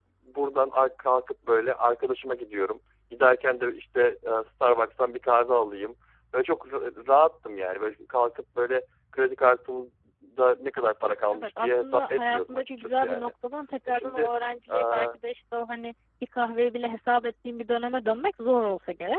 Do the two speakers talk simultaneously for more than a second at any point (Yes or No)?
Yes